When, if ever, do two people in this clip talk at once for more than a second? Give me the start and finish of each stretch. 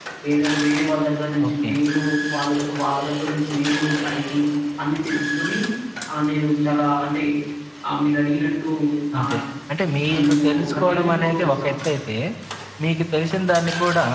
10.3-11.8

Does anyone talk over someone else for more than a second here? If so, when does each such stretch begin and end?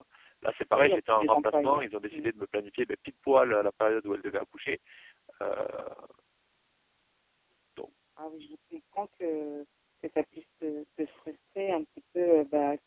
0.7-2.3

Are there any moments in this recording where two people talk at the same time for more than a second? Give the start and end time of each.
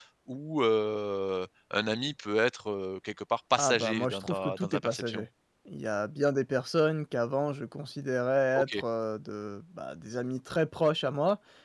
3.6-5.2

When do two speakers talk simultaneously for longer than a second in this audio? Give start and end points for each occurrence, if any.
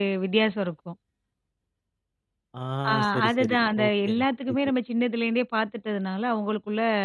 3.1-4.6

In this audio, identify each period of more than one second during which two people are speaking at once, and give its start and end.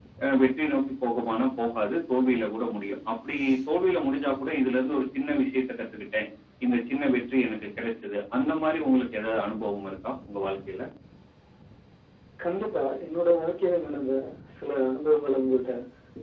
none

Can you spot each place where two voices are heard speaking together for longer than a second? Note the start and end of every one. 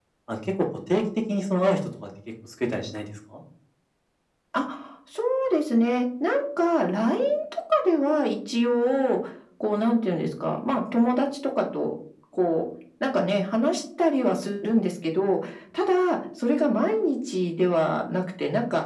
none

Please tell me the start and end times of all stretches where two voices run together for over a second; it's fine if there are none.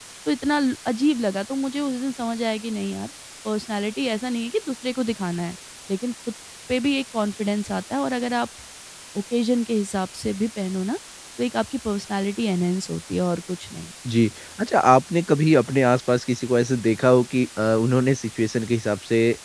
none

